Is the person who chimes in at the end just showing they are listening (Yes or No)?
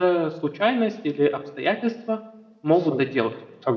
No